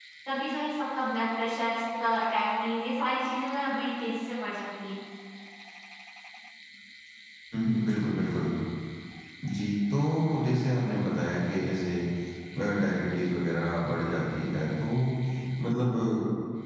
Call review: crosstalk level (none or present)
none